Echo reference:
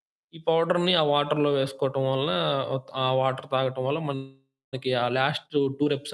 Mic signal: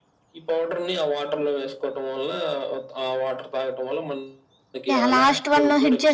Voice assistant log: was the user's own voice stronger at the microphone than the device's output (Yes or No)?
Yes